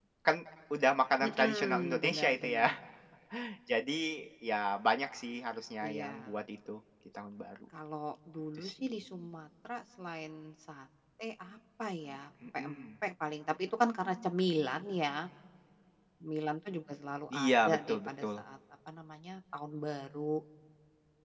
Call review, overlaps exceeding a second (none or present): present